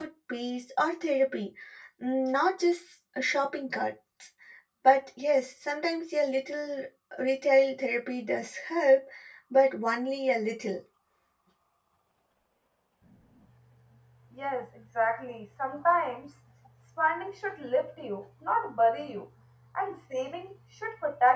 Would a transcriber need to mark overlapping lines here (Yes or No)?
No